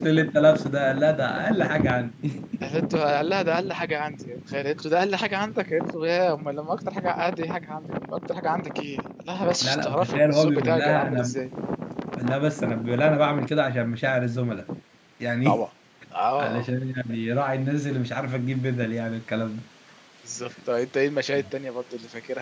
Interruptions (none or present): present